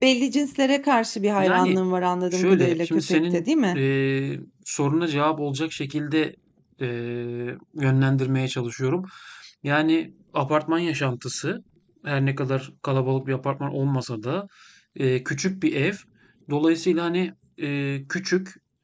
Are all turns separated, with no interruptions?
No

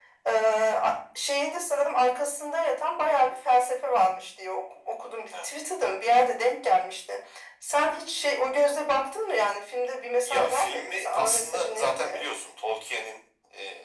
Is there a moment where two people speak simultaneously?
Yes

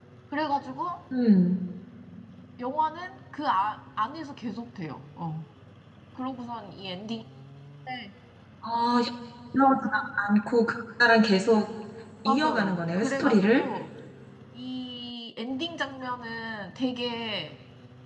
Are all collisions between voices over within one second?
No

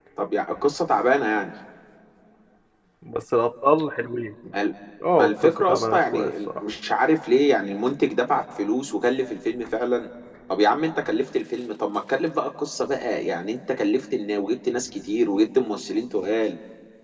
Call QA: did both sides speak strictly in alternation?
No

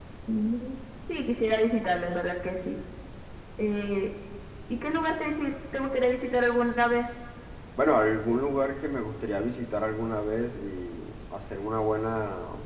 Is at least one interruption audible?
No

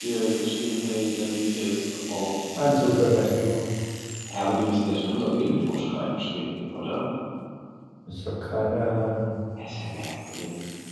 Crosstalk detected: No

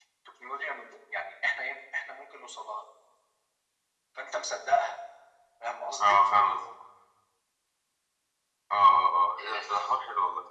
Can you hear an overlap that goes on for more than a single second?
No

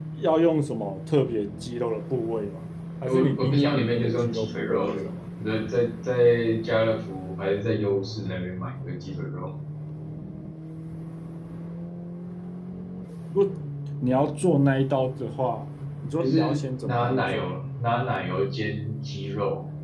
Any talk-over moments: Yes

